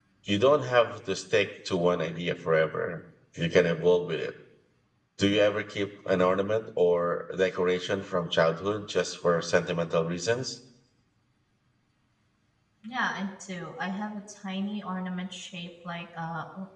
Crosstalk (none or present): none